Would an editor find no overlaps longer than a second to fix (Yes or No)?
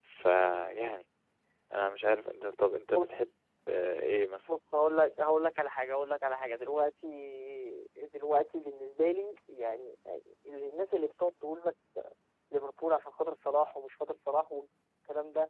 Yes